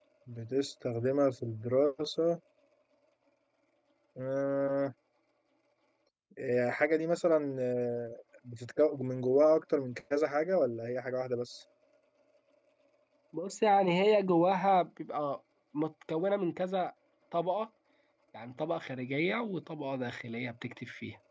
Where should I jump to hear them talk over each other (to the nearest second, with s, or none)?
none